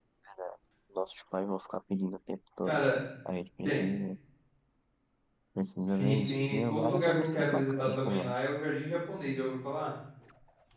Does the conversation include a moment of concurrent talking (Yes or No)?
Yes